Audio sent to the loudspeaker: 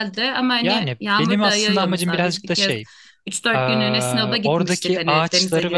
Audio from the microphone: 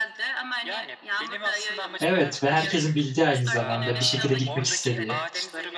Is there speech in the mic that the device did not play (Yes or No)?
Yes